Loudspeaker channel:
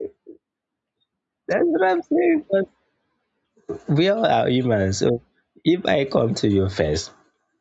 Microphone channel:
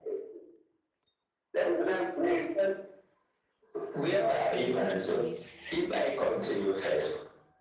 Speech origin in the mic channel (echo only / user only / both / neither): both